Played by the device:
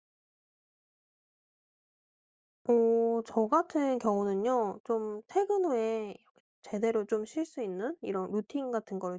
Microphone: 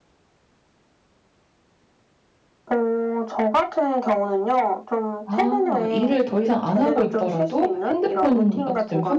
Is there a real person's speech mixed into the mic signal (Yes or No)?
Yes